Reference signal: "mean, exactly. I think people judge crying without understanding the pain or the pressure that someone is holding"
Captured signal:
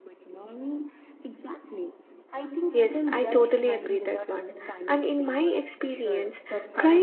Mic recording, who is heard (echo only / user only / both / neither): both